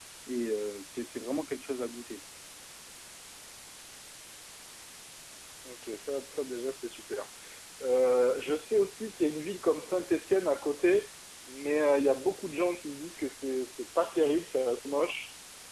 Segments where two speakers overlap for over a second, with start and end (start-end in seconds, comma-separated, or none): none